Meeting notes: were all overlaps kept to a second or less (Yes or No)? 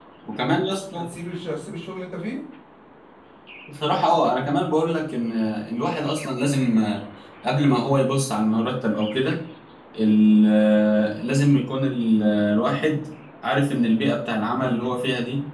Yes